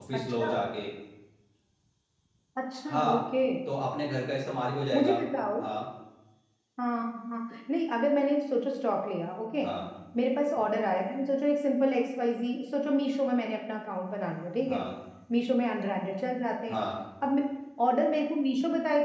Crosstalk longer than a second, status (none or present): none